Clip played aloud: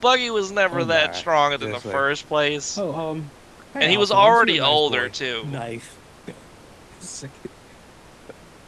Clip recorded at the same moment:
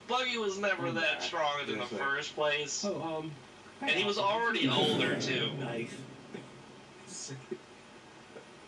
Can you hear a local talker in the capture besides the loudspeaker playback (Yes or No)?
Yes